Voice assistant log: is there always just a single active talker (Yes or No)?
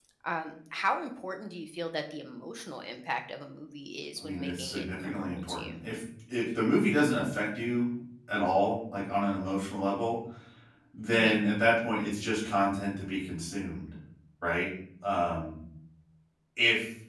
No